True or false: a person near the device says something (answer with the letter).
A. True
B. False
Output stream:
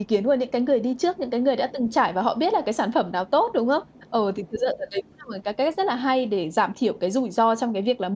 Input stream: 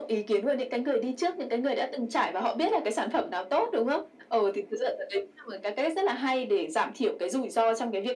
B